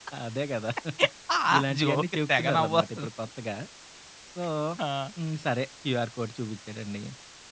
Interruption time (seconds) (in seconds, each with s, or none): 1.8 s